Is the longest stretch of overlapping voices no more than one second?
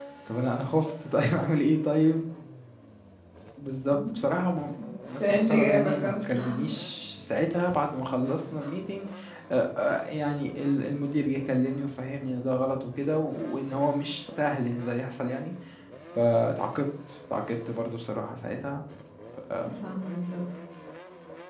No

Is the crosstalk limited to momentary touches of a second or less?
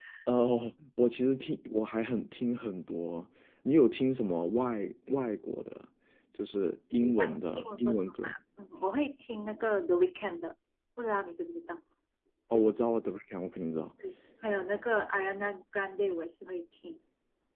No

